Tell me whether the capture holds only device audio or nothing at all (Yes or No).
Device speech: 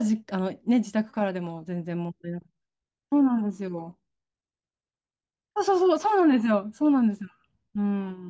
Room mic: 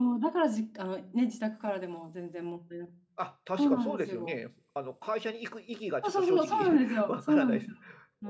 No